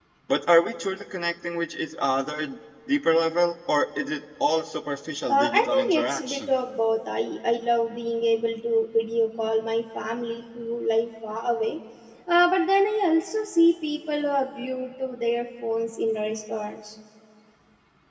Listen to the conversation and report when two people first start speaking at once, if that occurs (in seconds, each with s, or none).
5.3 s